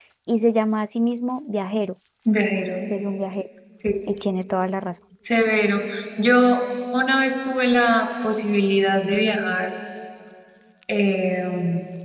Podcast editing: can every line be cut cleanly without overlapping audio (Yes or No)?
Yes